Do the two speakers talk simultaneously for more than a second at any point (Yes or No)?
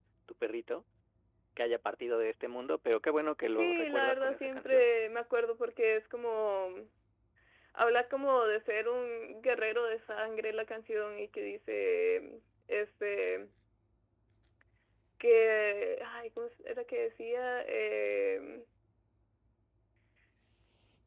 Yes